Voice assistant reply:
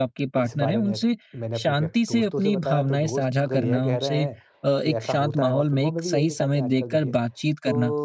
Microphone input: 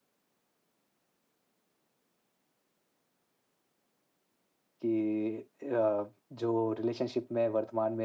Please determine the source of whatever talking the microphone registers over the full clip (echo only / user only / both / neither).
user only